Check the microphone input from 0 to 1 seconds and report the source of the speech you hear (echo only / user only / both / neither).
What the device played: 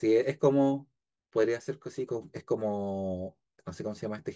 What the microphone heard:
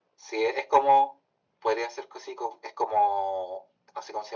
echo only